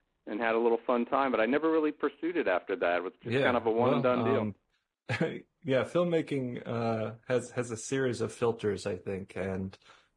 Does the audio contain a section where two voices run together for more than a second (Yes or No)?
Yes